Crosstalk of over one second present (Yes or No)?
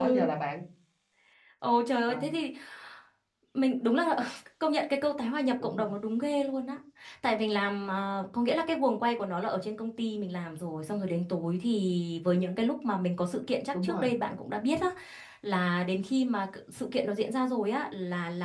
No